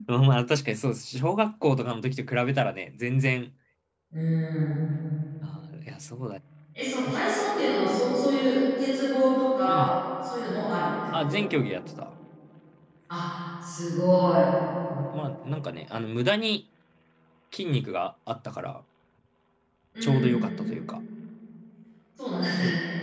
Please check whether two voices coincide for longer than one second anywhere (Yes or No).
No